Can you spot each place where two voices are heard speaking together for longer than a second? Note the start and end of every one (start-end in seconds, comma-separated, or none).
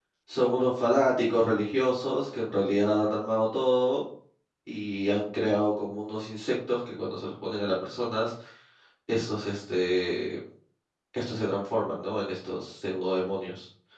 none